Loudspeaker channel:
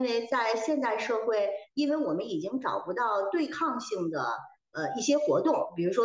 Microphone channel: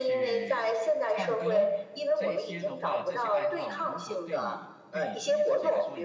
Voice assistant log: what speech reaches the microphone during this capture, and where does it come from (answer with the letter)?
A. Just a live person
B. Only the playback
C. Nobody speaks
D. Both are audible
D